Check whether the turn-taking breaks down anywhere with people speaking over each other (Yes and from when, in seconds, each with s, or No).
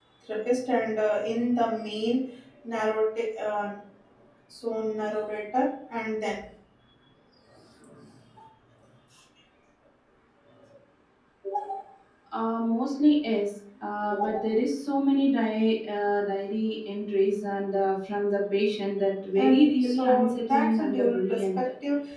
Yes, from 19.4 s